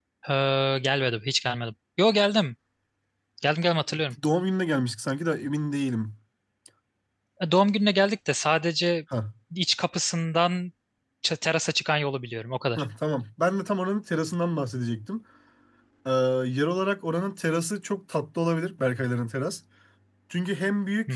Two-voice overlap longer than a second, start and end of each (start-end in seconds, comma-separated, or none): none